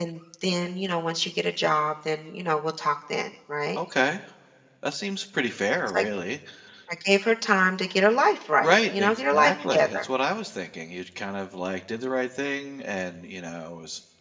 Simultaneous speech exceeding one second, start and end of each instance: 8.6-10.1

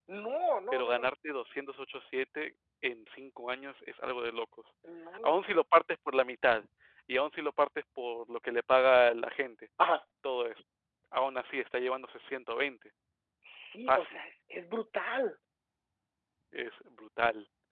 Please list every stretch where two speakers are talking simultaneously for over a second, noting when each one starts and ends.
none

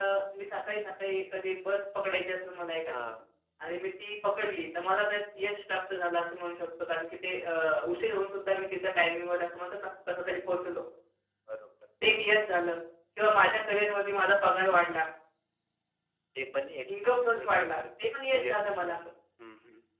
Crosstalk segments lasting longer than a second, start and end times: 17.4-19.0

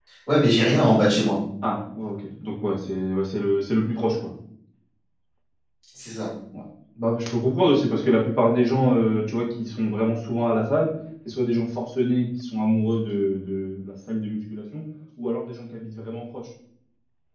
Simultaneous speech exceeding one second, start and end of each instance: none

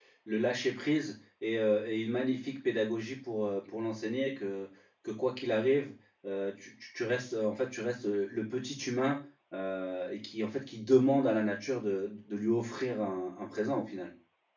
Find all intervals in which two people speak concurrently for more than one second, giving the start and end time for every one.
none

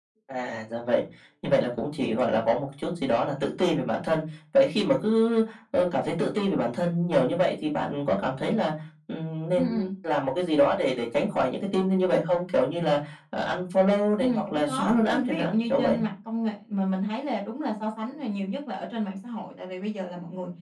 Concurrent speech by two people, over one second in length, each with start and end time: 14.2-16.0

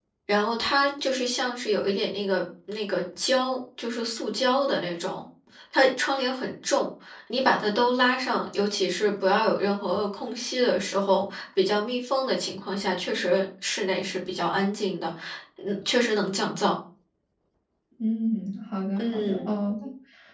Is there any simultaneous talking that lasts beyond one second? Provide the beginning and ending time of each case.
none

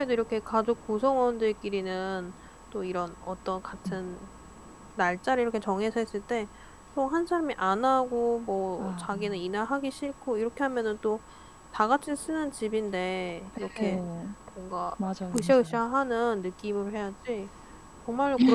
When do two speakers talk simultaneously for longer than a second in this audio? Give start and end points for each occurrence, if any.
none

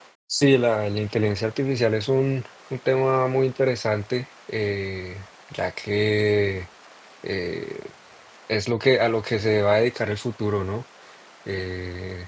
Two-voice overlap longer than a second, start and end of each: none

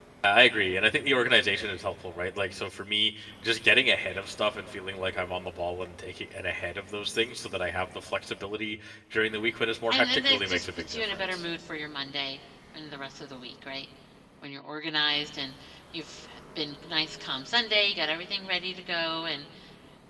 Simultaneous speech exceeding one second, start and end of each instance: 9.9-11.4

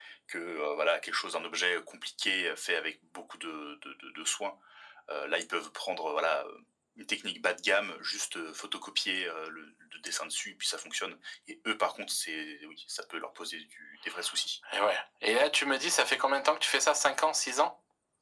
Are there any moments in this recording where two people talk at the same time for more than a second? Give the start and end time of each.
none

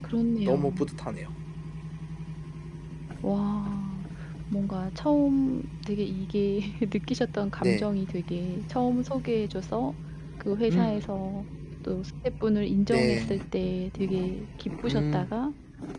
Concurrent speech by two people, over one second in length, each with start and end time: none

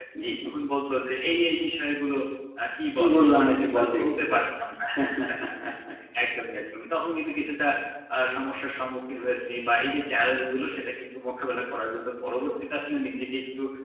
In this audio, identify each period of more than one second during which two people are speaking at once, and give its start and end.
3.0-4.2

